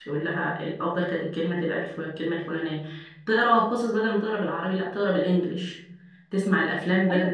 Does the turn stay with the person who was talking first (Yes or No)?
Yes